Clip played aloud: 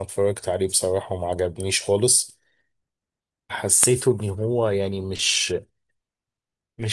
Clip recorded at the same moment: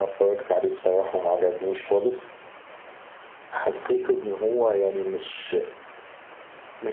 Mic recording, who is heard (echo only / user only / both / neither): echo only